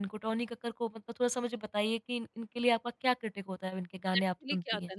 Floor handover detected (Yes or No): Yes